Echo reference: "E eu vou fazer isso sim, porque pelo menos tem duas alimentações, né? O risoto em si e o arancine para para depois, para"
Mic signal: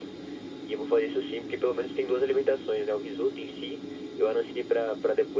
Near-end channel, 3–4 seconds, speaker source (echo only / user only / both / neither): echo only